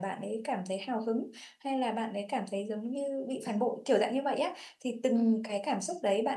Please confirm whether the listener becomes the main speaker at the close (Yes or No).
No